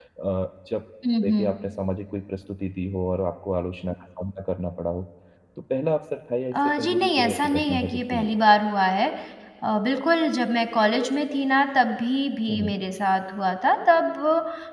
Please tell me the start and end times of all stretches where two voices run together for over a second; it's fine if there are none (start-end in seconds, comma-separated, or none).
6.5-8.4